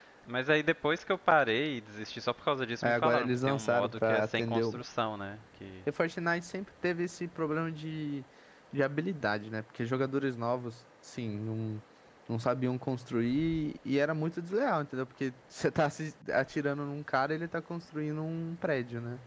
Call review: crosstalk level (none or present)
present